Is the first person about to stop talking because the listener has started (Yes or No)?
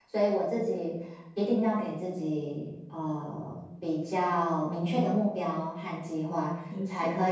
No